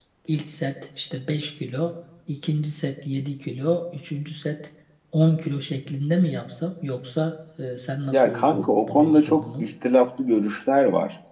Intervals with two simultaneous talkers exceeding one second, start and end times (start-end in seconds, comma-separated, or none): 8.1-9.7